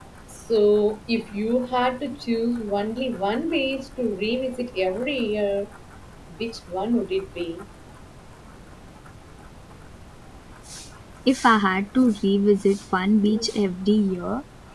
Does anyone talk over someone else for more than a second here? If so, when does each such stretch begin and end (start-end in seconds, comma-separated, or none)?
none